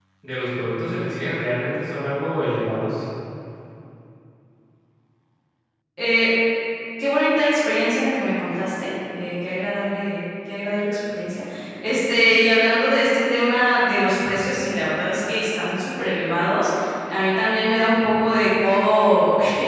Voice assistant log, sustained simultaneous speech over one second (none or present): none